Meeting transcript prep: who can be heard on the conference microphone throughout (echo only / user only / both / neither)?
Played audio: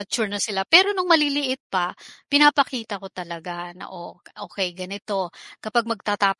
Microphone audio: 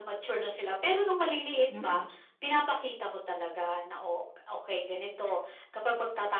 both